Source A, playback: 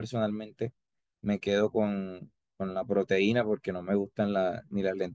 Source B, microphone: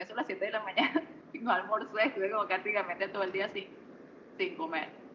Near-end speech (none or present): present